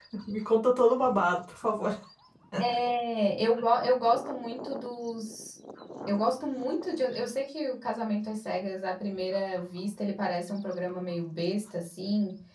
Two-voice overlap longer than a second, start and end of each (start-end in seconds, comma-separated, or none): none